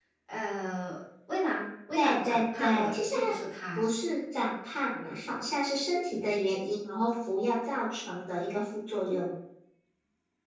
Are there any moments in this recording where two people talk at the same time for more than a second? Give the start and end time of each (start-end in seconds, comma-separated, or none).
1.9-3.3